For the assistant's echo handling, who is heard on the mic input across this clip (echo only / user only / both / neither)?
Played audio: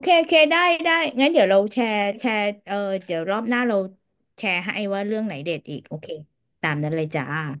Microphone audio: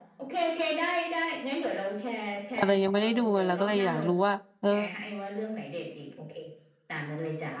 both